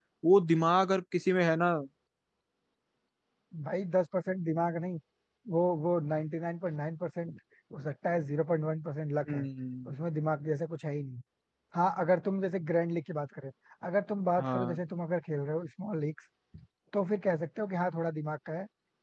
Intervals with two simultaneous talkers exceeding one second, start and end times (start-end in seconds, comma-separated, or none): none